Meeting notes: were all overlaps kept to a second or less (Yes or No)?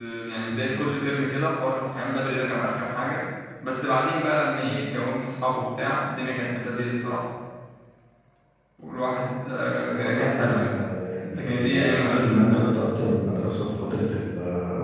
No